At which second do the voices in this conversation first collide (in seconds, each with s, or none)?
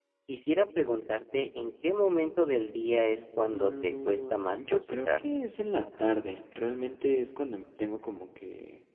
3.4 s